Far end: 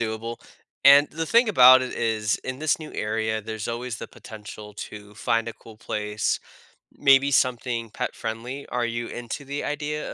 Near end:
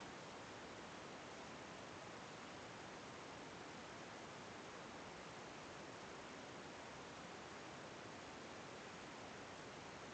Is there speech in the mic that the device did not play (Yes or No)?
No